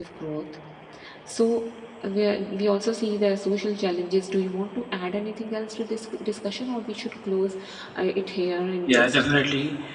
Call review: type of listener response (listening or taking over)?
taking over